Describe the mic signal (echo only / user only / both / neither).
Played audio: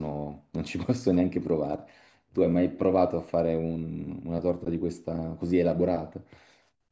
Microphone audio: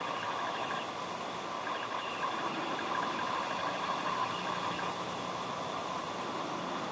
neither